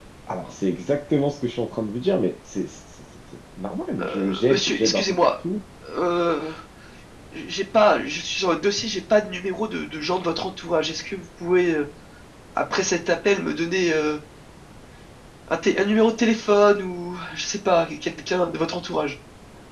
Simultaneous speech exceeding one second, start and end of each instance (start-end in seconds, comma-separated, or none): 4.0-5.3